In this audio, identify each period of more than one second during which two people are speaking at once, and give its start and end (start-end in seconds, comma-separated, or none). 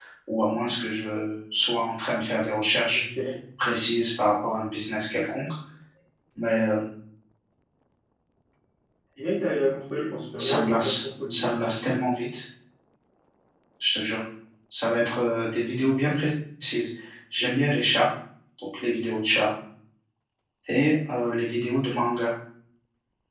10.4-12.0